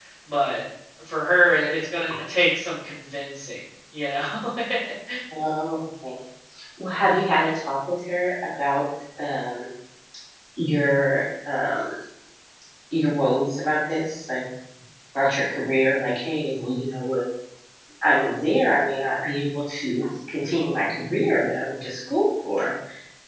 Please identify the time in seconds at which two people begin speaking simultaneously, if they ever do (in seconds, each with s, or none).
none